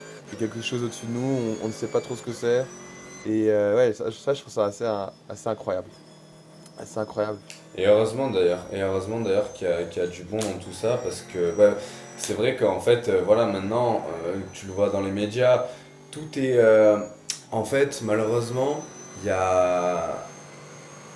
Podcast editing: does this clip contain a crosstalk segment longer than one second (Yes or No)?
No